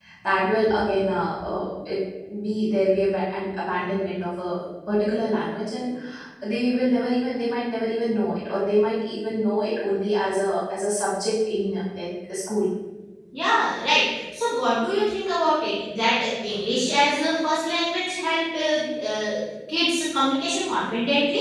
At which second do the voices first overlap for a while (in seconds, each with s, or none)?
none